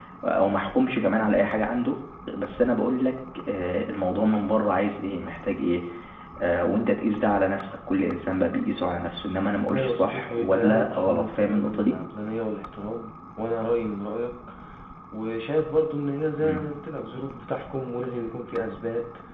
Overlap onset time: 9.7 s

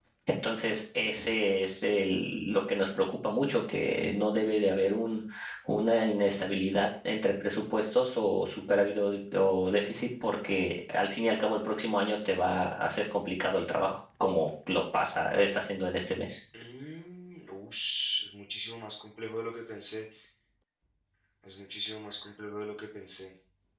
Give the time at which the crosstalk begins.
none

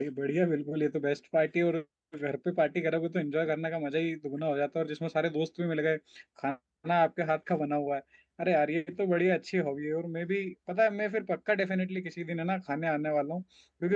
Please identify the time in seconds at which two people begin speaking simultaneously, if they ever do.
none

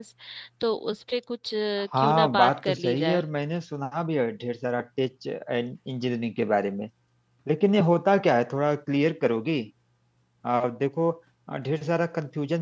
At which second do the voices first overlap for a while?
1.9 s

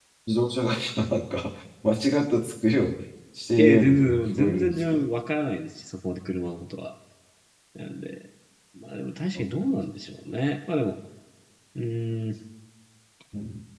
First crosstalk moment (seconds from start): 3.6 s

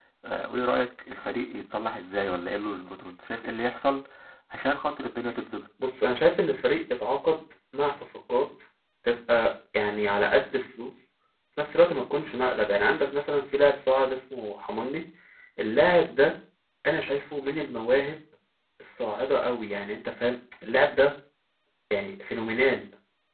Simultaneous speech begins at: none

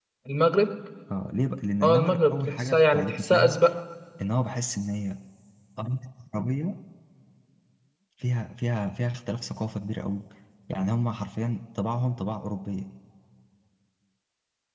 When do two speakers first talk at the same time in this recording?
1.8 s

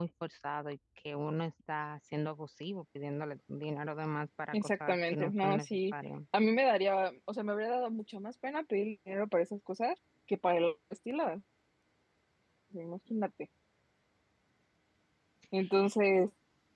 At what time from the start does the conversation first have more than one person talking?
4.5 s

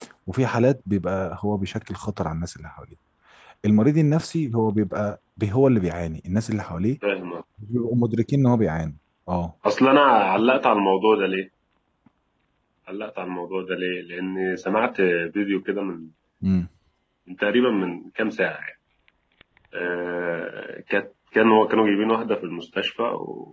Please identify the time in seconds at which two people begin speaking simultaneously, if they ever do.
none

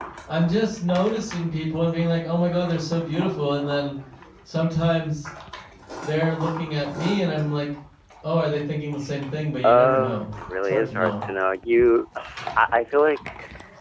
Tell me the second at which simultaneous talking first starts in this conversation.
9.6 s

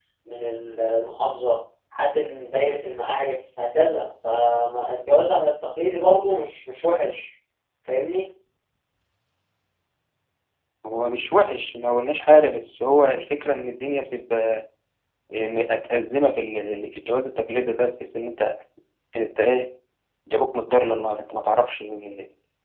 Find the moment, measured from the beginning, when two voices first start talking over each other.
none

